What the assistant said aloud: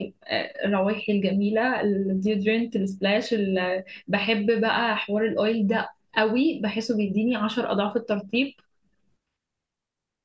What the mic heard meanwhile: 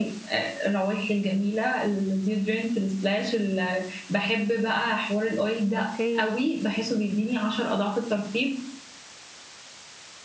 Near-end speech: present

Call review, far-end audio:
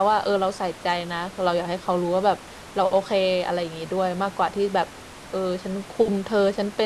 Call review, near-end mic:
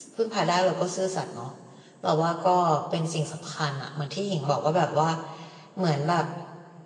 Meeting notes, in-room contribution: present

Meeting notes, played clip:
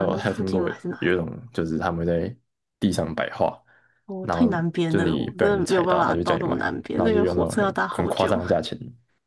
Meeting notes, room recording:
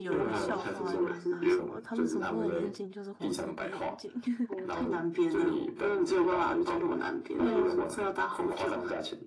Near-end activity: present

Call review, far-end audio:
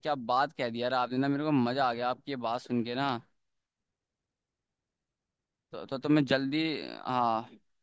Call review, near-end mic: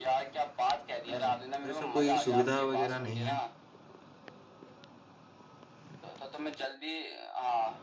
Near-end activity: present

